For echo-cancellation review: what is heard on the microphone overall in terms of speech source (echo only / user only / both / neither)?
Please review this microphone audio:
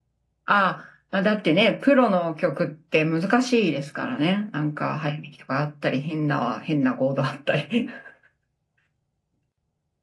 echo only